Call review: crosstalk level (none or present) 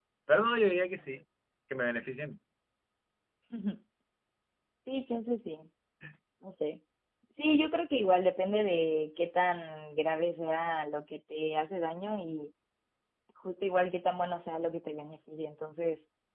none